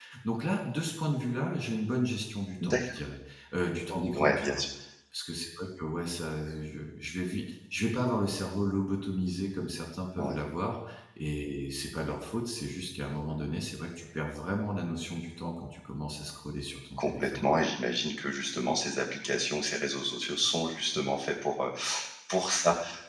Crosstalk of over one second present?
No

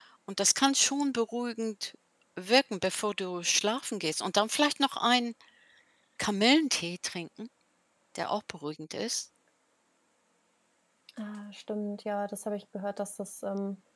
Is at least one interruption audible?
No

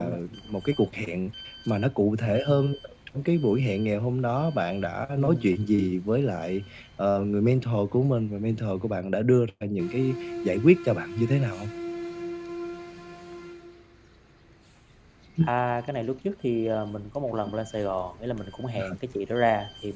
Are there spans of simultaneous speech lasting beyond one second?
No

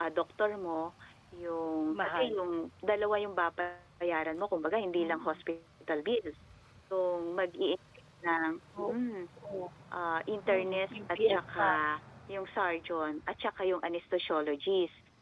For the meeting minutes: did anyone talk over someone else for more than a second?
Yes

